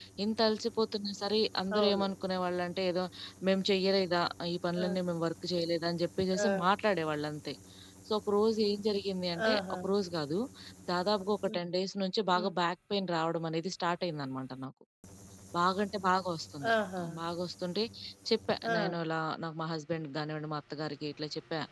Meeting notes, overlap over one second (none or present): none